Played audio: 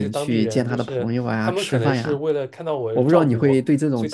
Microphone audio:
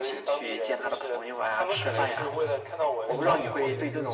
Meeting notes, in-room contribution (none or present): present